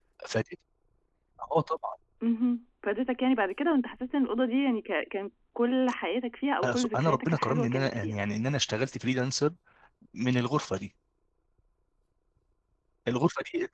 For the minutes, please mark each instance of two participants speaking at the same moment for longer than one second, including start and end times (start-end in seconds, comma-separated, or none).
6.6-8.2